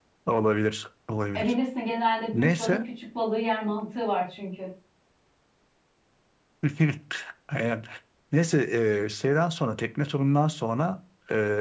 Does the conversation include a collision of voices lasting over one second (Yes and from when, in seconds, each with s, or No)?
No